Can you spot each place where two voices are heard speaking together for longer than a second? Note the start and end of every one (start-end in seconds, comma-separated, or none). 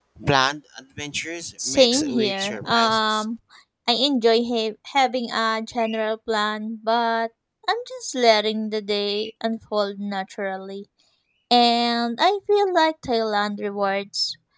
1.7-3.2